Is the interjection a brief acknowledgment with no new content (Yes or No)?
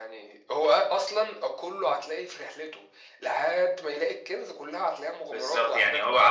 No